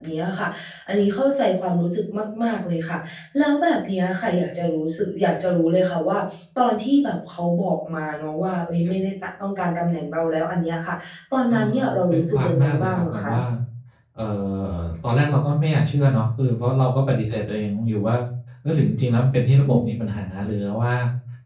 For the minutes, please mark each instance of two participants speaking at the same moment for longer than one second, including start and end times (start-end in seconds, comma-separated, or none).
11.5-13.3